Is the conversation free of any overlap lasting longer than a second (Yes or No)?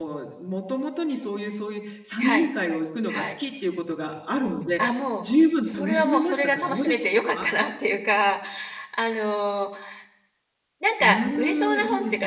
No